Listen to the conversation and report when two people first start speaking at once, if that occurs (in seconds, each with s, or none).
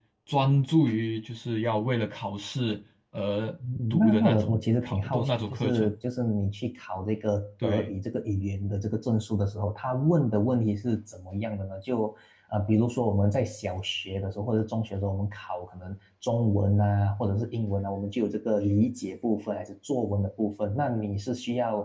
3.9 s